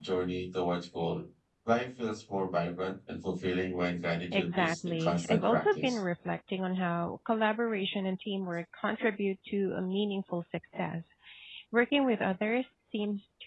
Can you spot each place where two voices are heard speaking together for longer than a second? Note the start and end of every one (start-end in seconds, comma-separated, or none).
4.3-6.0